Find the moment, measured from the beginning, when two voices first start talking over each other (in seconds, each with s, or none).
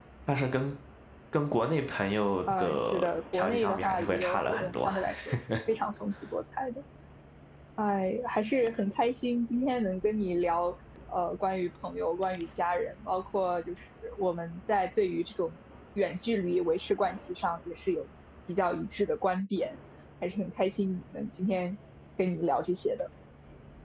2.5 s